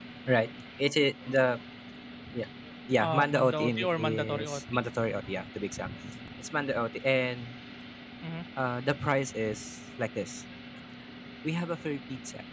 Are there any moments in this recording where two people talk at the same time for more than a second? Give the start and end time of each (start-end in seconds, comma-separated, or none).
3.0-4.6